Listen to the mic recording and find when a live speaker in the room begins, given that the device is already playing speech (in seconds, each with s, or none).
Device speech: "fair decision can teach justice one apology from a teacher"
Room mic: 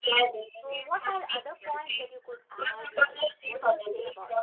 0.6 s